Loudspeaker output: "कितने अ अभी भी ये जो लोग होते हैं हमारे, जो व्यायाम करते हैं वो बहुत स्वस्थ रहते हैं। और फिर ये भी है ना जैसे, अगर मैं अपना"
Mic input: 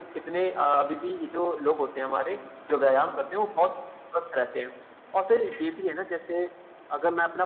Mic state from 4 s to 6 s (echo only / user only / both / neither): echo only